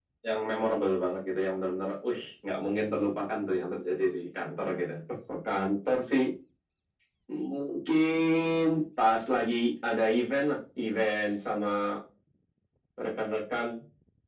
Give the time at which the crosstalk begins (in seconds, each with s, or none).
none